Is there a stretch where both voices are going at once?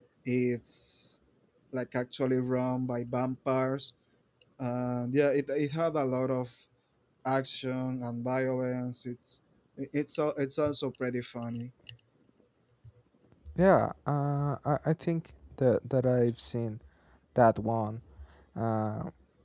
No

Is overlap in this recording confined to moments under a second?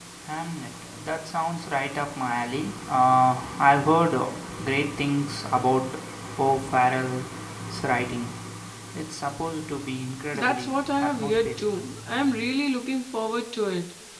No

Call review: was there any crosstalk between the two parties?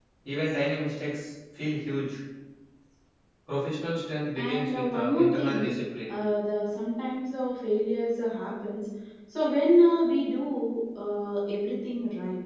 Yes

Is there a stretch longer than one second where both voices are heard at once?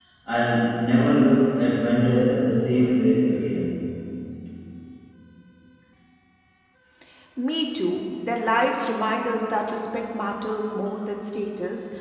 No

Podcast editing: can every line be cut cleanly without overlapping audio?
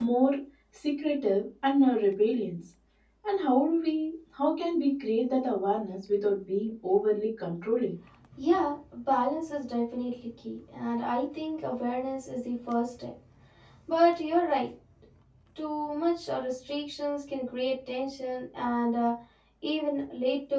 Yes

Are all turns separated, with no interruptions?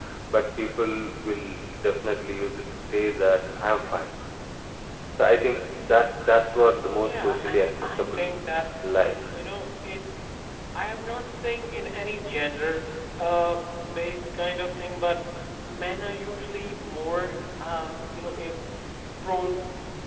No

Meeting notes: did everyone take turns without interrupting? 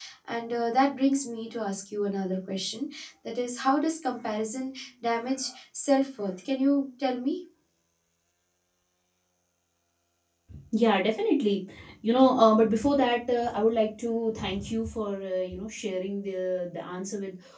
Yes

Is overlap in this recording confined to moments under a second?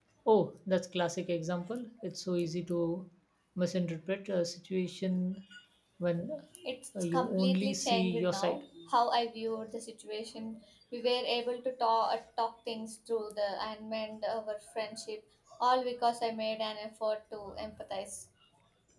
No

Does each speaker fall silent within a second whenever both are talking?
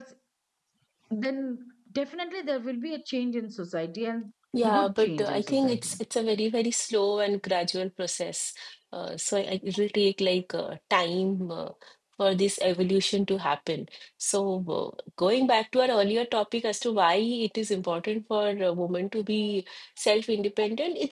No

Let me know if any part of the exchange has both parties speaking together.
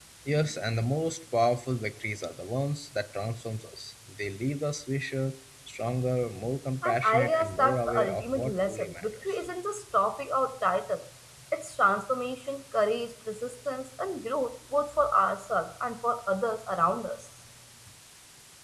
Yes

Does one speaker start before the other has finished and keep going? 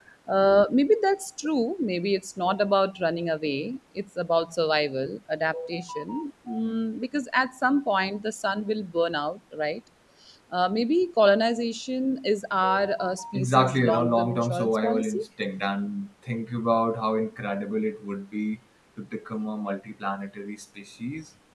Yes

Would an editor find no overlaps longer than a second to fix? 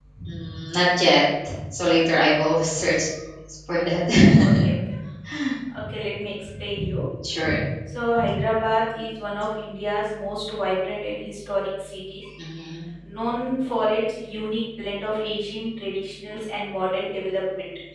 Yes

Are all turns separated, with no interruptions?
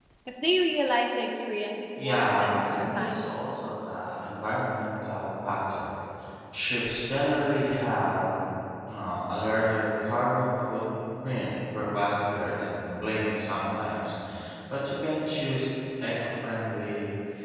No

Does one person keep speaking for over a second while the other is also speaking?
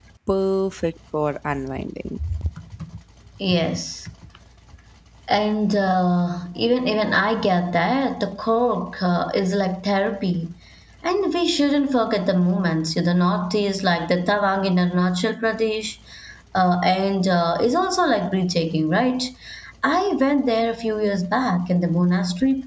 No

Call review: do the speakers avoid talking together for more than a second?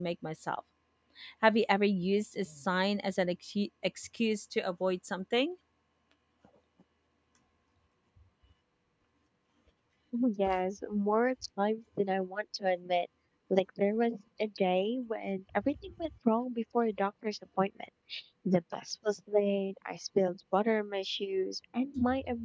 Yes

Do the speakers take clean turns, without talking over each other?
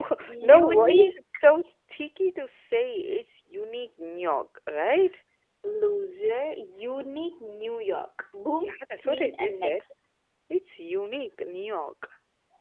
No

